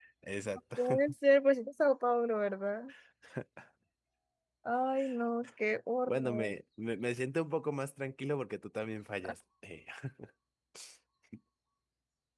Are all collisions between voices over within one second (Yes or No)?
Yes